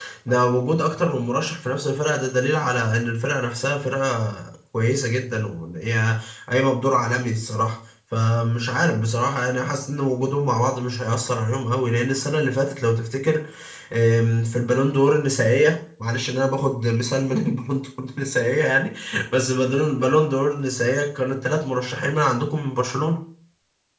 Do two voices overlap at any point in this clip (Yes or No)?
No